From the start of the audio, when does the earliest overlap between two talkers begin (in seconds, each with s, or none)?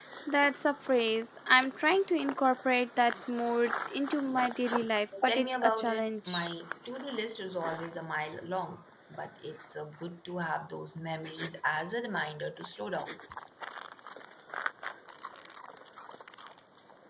5.3 s